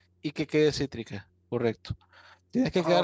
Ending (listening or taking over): listening